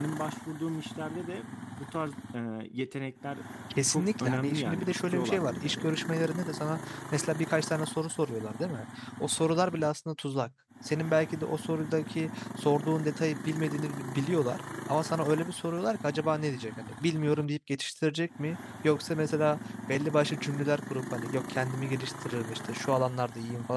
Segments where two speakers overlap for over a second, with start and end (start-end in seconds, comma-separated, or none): 3.9-5.9